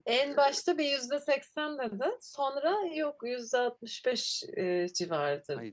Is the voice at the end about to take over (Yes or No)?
Yes